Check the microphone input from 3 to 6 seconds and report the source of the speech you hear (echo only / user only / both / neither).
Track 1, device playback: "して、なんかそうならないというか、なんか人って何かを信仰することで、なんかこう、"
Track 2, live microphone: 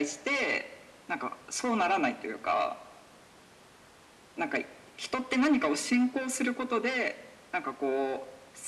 echo only